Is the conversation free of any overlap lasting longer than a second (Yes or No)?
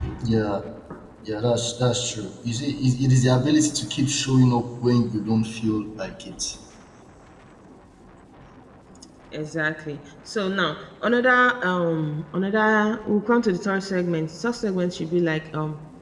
Yes